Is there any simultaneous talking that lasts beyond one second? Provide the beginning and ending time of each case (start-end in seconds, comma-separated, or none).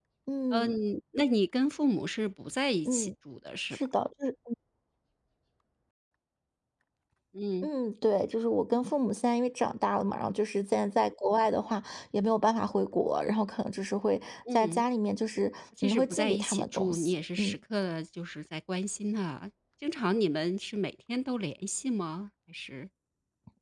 15.8-17.6